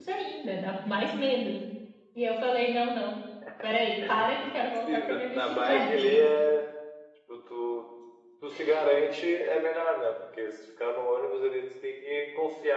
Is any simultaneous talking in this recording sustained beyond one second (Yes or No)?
Yes